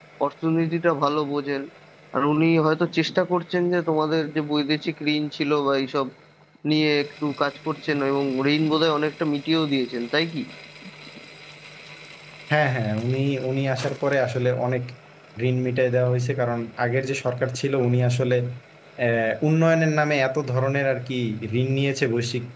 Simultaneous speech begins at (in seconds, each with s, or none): none